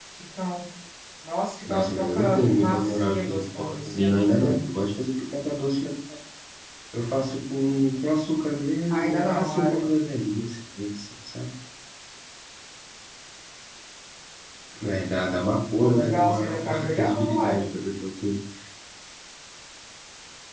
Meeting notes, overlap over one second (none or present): present